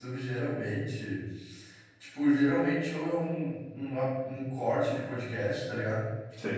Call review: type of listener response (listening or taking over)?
listening